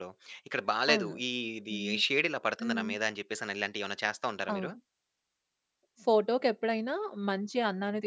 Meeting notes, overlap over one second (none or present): none